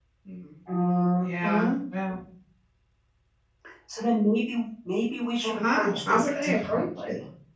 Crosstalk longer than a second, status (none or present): present